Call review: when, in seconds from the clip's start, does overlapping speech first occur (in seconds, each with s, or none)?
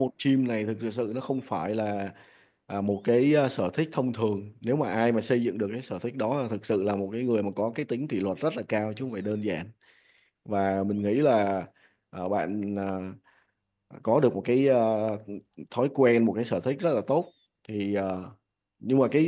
none